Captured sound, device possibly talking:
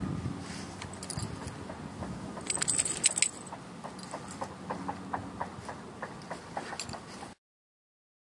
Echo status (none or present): none